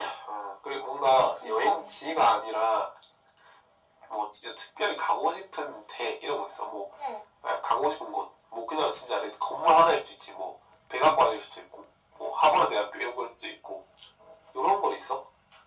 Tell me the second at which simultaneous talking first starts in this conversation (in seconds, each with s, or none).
1.0 s